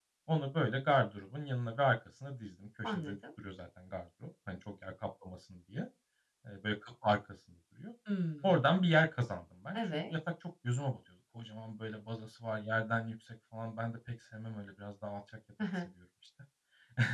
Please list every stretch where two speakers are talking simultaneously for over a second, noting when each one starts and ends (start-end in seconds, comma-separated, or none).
none